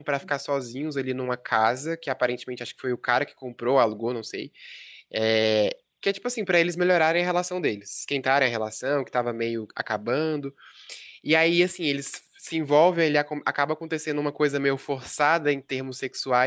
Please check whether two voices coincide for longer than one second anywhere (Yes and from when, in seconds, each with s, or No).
No